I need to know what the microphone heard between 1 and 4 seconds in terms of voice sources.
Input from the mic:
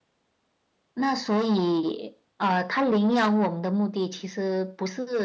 echo only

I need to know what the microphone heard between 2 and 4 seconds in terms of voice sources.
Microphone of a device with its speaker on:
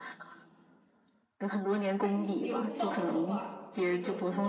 both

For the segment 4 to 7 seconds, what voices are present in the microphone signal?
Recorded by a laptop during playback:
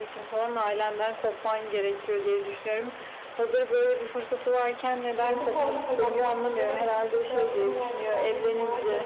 both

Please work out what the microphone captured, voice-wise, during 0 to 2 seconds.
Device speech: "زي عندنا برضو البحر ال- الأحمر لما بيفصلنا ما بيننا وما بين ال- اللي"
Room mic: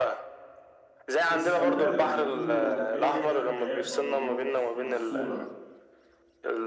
both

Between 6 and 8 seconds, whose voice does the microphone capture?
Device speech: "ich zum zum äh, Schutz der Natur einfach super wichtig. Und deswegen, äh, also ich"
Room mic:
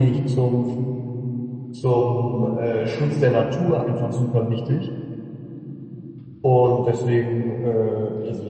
echo only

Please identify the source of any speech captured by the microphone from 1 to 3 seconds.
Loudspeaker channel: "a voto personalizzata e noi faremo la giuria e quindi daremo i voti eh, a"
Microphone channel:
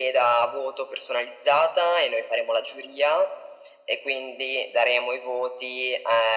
echo only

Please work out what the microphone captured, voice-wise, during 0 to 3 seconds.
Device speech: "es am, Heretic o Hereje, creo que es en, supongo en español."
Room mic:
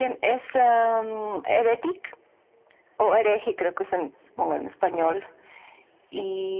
echo only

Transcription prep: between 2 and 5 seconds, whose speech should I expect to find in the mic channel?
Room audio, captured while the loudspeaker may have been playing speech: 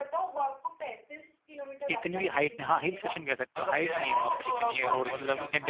both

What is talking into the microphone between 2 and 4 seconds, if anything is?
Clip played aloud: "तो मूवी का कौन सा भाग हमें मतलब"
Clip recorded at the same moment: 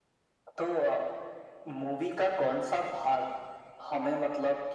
echo only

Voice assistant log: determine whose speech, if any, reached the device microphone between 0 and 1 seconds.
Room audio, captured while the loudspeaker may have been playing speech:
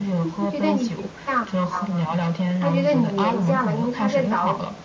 both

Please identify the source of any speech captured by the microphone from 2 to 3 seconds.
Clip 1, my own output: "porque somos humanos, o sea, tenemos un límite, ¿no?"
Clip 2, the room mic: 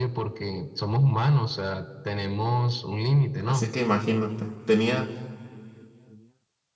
echo only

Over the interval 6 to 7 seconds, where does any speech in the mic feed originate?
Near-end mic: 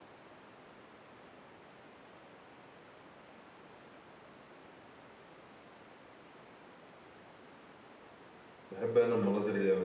neither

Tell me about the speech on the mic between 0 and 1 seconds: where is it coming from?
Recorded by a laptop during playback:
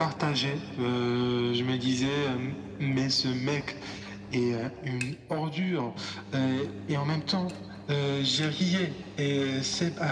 echo only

